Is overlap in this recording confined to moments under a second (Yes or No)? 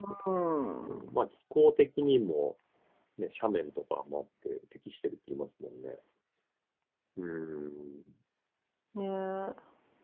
Yes